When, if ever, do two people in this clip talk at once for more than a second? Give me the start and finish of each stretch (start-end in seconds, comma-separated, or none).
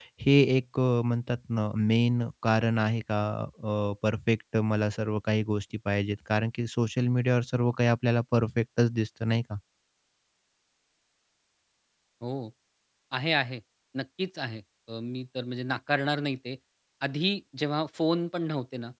none